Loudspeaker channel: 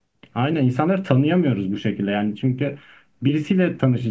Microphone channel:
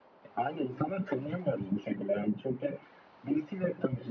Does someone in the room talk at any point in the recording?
No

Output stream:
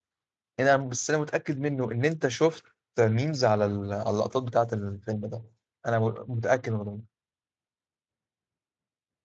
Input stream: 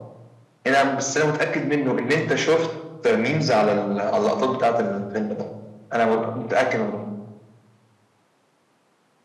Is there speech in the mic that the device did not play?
No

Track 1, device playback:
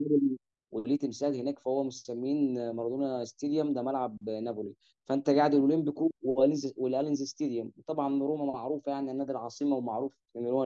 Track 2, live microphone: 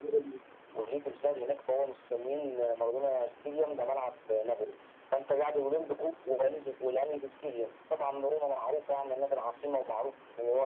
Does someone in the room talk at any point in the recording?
No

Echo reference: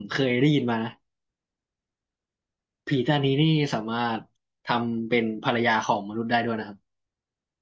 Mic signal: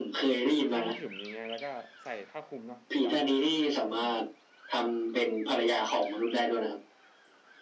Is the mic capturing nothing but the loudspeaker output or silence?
No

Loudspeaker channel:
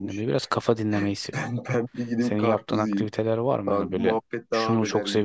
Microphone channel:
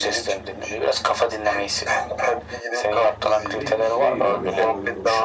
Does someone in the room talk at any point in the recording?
Yes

